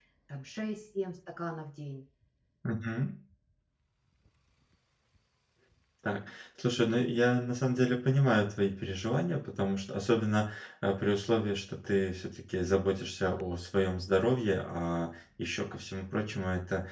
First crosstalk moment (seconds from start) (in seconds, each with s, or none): none